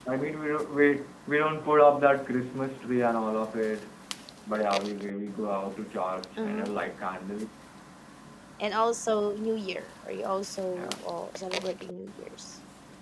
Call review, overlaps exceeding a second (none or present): none